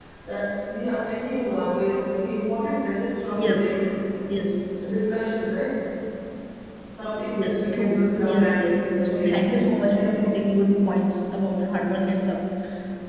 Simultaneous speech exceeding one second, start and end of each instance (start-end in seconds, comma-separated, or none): 7.3-10.3